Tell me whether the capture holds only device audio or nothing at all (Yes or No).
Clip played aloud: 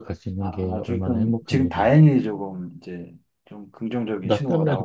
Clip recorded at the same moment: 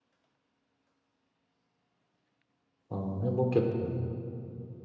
No